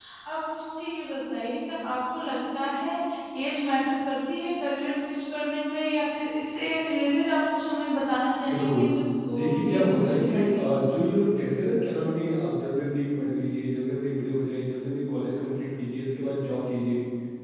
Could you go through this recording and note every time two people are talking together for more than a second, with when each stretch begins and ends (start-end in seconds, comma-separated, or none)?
9.3-10.6